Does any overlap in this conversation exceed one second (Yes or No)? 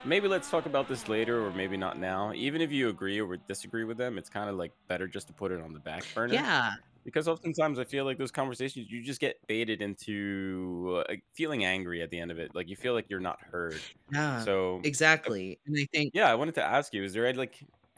No